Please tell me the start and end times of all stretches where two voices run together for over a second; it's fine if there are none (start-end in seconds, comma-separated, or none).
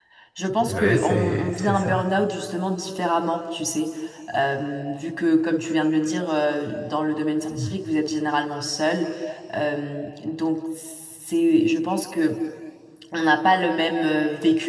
0.6-1.9